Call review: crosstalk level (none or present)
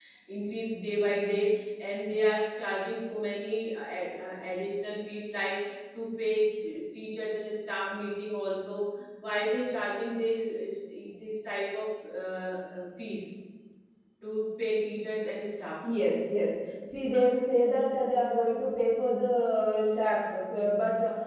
none